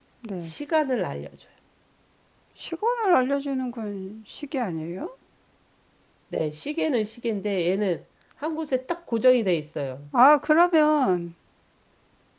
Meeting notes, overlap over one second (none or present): none